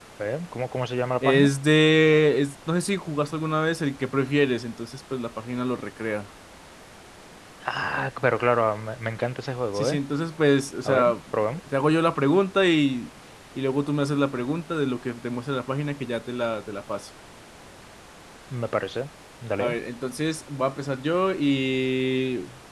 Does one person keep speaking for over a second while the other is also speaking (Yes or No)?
No